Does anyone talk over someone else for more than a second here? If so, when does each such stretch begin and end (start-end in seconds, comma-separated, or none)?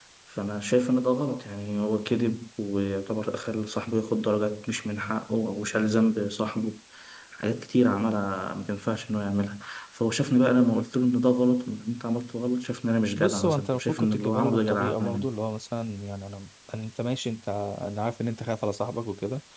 13.2-15.3